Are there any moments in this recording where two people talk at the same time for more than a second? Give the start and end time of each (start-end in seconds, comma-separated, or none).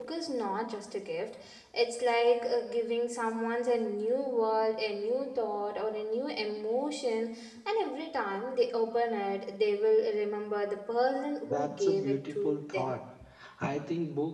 11.4-12.9